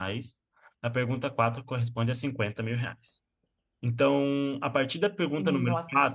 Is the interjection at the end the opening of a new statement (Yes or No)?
No